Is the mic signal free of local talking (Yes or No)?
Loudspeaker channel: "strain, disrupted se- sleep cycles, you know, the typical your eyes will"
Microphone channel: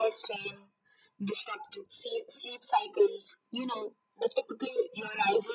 Yes